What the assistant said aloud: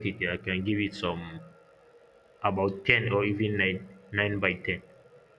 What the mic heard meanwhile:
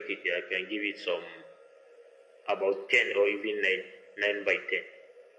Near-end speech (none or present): none